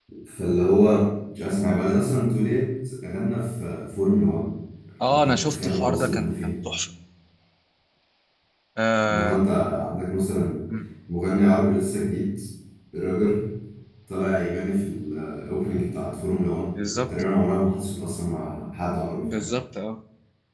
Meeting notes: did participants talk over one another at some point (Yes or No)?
Yes